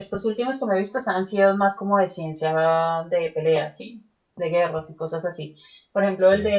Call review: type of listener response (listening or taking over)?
listening